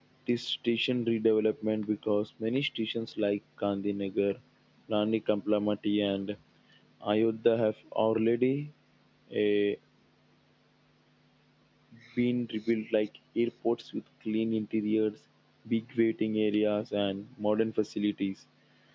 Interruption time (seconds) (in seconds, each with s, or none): none